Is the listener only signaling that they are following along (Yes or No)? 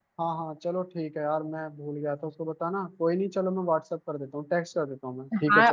No